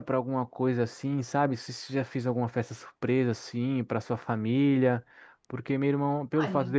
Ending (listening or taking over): listening